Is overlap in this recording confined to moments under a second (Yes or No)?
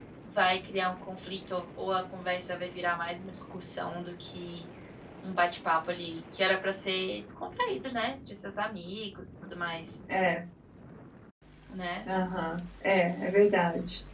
Yes